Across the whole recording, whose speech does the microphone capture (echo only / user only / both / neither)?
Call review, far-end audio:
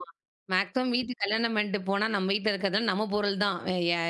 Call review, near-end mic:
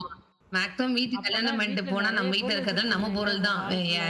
both